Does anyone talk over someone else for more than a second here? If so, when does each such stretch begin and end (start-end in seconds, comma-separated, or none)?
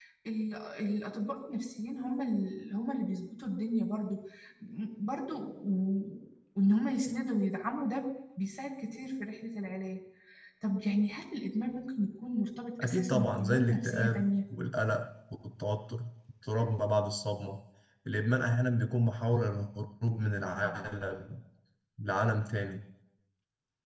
12.8-14.2